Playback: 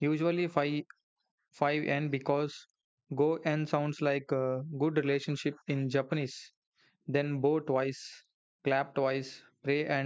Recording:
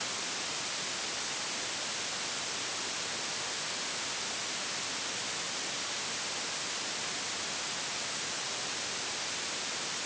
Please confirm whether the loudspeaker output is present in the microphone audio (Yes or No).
No